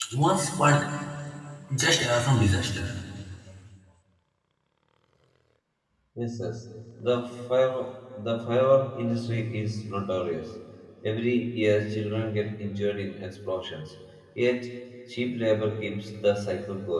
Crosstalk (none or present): none